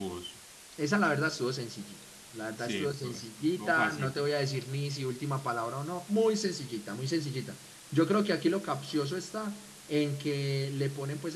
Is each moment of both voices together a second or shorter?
No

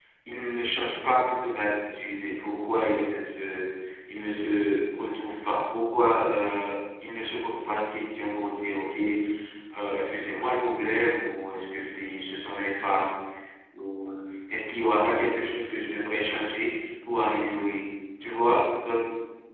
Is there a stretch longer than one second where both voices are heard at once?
No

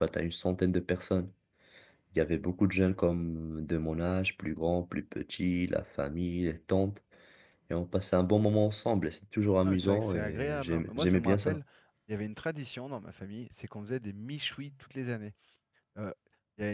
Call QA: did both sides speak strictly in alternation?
No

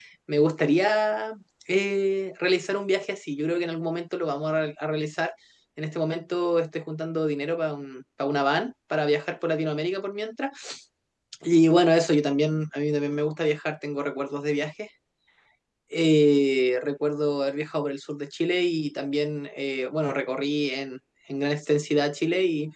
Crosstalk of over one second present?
No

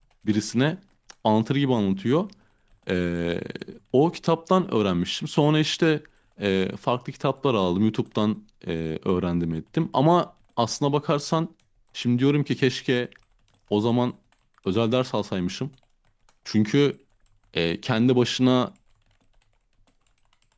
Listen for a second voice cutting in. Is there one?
No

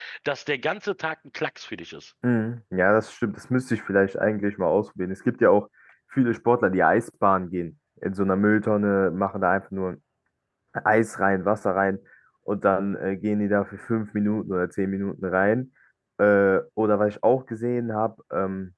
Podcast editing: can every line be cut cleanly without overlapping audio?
Yes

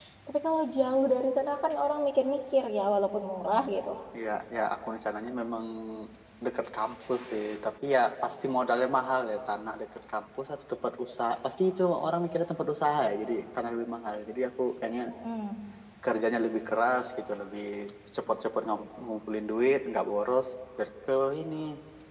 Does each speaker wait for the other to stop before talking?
Yes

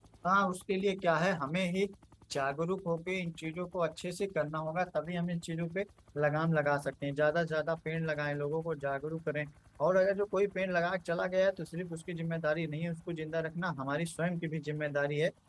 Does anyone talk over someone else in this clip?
No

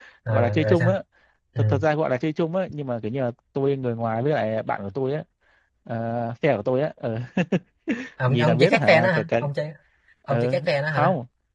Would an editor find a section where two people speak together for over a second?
Yes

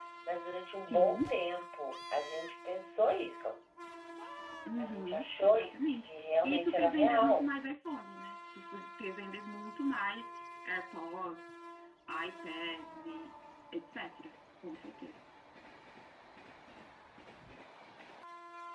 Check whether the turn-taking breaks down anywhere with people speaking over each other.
Yes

